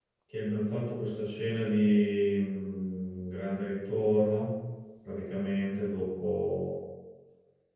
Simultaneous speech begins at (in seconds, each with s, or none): none